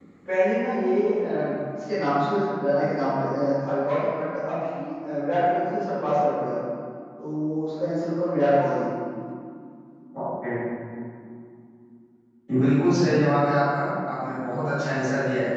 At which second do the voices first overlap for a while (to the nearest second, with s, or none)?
none